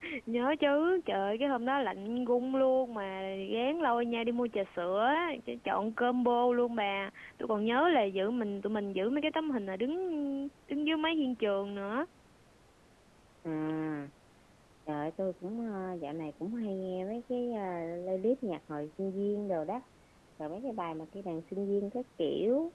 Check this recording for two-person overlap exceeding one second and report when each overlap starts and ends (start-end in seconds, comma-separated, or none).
none